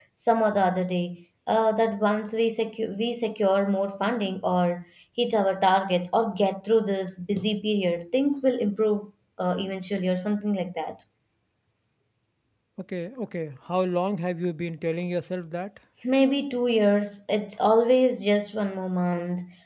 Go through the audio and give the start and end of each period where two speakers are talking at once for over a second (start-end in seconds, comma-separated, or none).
none